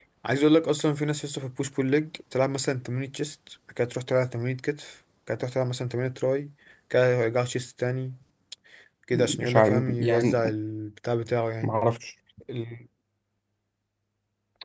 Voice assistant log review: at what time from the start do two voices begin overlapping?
9 s

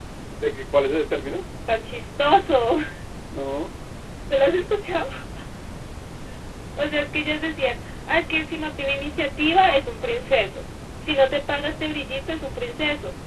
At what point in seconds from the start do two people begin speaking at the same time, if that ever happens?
none

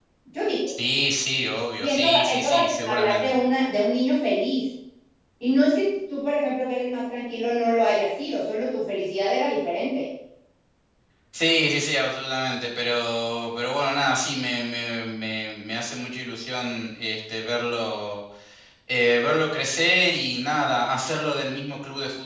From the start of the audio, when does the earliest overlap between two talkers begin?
2 s

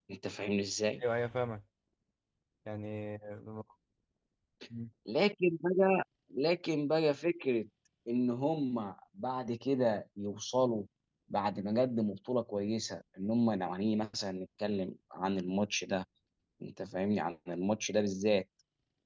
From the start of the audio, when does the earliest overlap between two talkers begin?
none

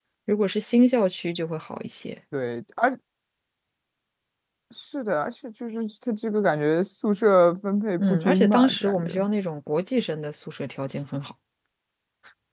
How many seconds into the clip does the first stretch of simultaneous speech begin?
8 s

